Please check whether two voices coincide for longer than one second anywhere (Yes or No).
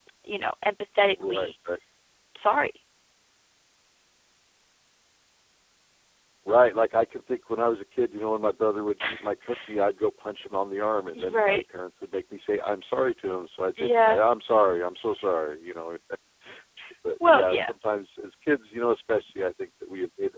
No